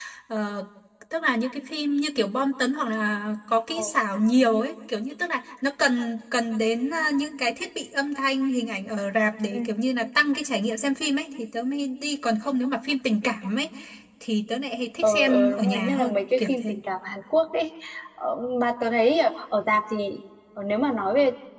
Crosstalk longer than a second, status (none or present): present